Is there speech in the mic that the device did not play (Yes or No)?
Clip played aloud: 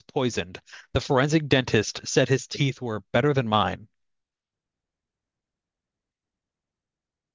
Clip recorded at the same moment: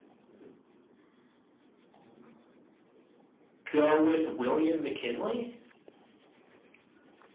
Yes